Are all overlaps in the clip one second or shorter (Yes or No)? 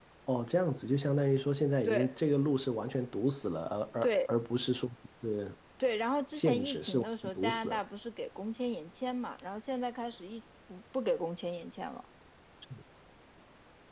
No